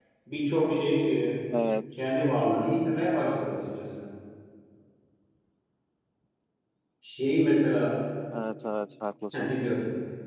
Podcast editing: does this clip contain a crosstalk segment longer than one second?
No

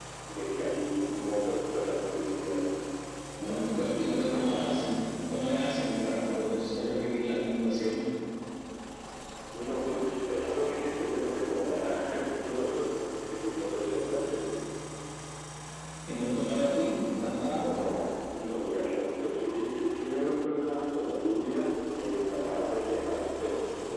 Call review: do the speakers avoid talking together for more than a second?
No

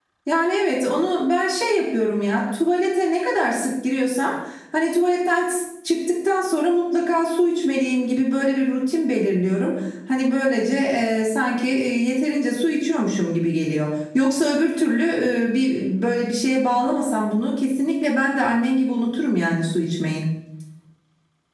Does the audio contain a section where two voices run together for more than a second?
No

